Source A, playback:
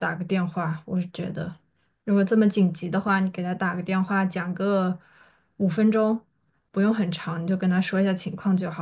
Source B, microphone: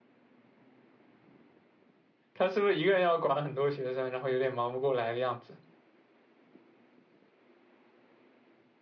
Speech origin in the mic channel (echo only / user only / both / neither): user only